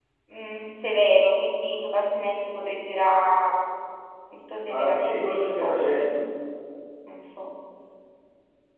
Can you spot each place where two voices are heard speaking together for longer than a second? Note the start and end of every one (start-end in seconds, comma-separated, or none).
4.7-6.1